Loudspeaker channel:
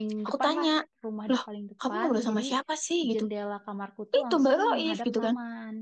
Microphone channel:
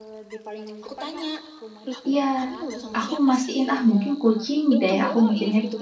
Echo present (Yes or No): Yes